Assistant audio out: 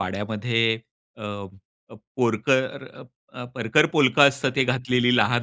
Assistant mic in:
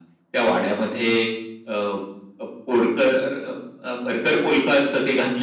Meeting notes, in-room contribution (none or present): none